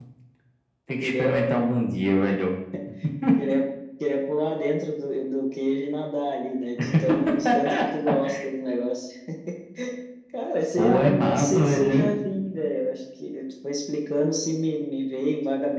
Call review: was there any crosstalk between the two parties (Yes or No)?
Yes